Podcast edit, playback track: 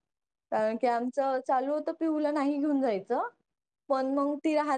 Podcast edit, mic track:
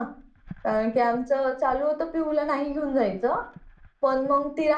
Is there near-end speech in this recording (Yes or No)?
No